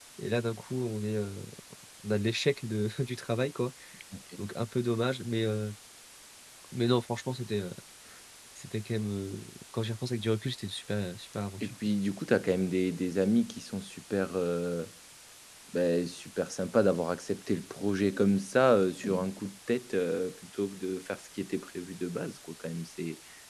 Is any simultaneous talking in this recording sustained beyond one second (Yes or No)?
No